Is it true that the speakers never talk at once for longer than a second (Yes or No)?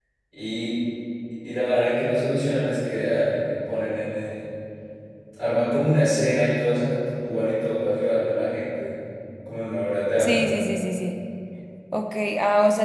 Yes